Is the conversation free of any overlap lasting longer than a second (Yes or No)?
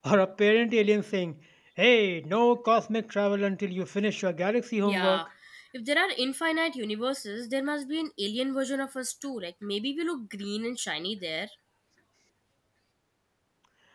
Yes